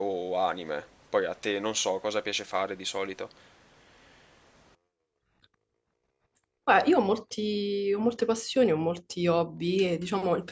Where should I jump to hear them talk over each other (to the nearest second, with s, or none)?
none